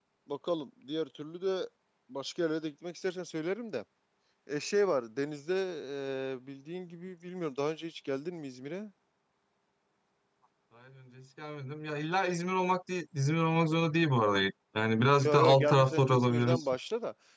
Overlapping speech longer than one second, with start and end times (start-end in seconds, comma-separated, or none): 15.2-16.6